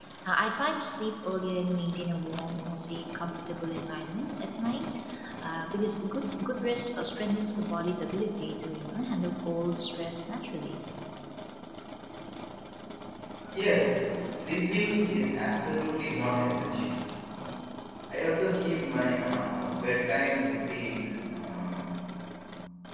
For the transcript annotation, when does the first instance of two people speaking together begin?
none

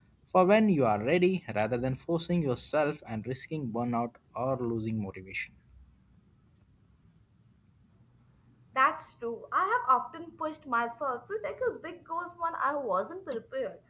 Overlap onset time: none

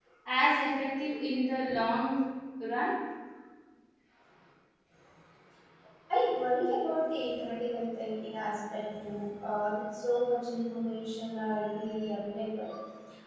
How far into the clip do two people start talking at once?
none

